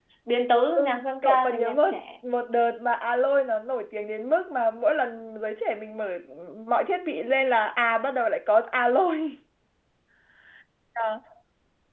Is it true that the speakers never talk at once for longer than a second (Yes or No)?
No